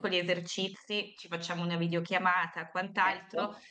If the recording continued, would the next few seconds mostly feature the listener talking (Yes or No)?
No